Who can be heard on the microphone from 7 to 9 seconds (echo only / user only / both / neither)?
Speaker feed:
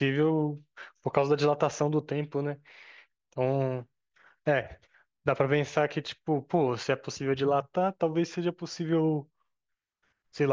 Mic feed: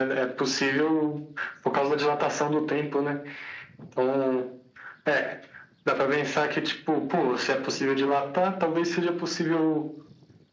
echo only